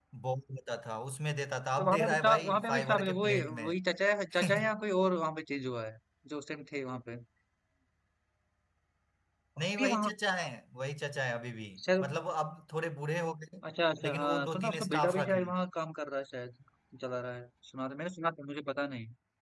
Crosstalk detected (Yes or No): Yes